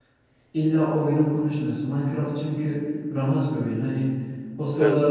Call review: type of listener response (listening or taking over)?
listening